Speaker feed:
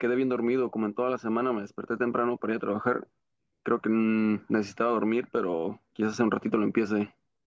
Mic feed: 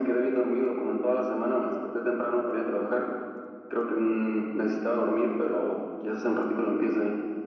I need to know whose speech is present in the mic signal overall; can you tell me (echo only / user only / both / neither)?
echo only